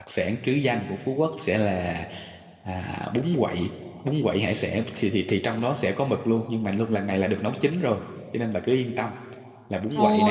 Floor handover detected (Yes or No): Yes